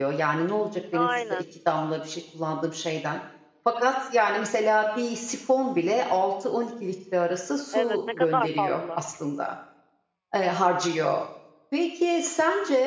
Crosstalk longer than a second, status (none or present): present